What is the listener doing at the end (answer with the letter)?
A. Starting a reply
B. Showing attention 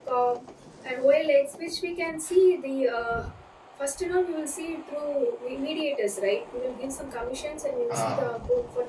B